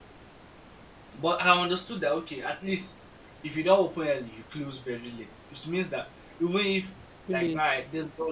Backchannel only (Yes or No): Yes